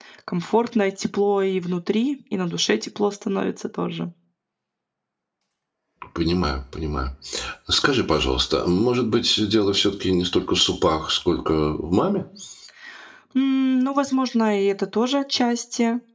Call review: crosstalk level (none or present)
none